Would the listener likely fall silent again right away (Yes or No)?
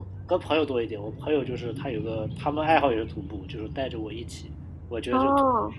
Yes